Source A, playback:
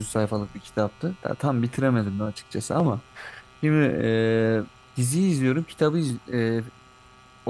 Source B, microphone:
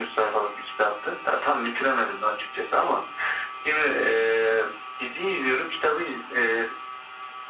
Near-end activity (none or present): none